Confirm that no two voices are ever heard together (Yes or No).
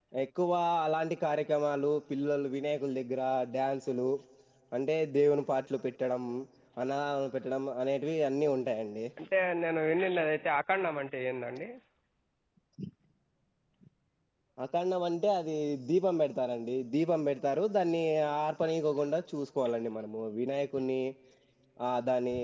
Yes